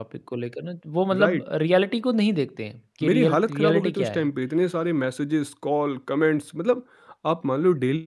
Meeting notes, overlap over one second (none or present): present